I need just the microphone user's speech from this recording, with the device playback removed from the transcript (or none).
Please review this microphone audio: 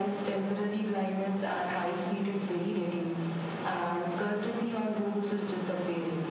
none